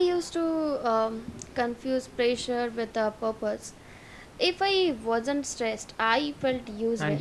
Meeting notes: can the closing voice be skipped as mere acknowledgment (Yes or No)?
No